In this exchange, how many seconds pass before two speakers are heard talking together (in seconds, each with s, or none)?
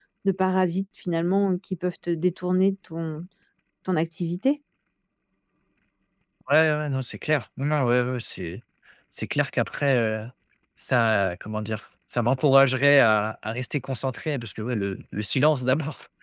none